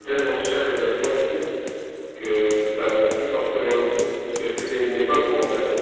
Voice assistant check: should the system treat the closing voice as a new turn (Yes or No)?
No